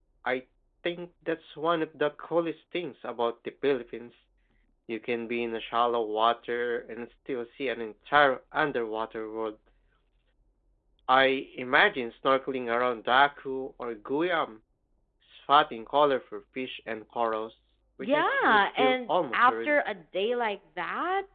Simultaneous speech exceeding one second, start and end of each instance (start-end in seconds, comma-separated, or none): 18.0-19.8